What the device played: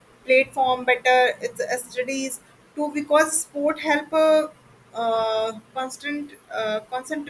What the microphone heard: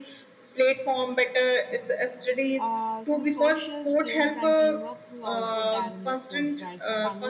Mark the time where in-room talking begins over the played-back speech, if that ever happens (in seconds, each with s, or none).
2.6 s